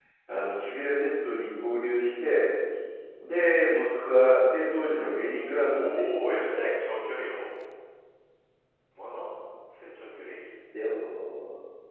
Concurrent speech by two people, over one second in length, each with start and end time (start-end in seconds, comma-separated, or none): 5.4-6.7